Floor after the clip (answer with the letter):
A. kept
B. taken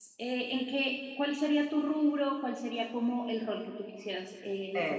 B